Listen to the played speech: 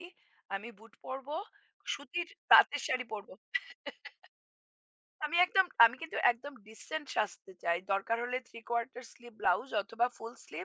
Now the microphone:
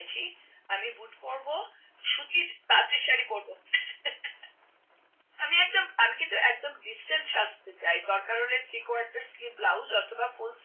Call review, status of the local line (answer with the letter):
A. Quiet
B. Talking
A